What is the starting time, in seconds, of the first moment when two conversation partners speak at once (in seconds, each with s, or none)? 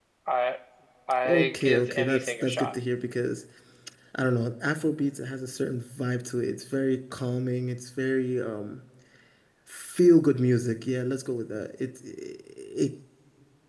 1.2 s